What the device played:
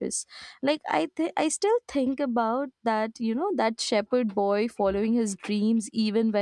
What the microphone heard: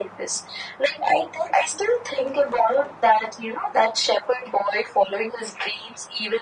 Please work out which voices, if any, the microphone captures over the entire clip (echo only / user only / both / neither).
echo only